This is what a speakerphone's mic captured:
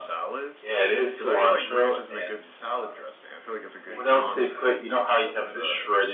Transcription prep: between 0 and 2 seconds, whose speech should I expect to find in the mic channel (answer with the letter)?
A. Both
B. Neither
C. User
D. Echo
D